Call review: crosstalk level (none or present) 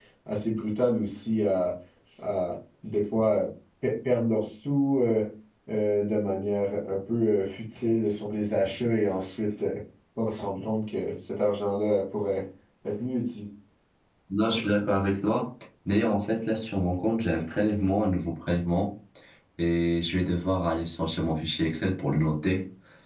none